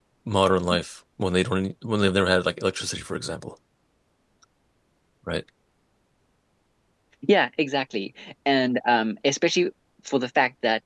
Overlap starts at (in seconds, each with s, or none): none